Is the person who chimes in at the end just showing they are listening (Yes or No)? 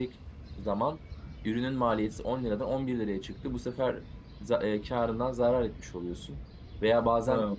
Yes